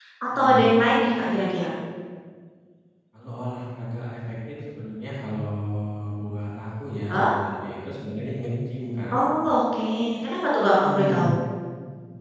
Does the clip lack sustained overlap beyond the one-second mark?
Yes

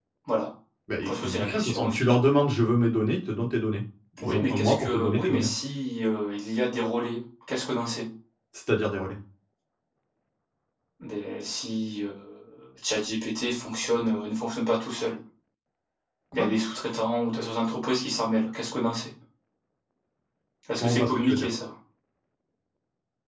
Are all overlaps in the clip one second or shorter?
No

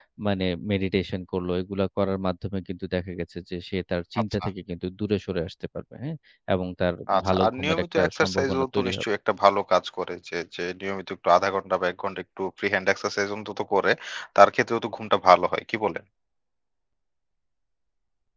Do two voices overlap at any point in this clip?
Yes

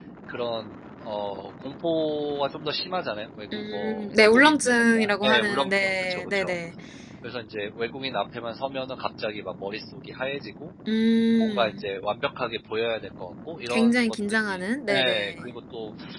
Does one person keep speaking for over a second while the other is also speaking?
Yes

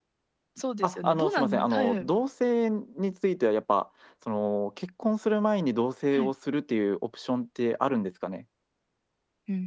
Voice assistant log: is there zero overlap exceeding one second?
No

